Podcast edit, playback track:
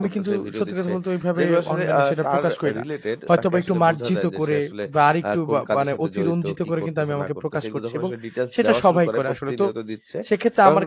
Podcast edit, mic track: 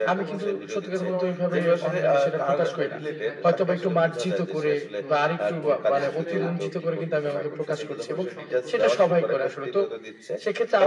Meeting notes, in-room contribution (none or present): present